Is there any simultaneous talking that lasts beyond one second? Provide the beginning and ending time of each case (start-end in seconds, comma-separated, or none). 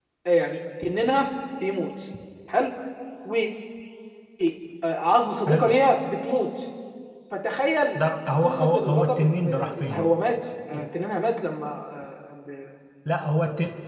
8.4-10.1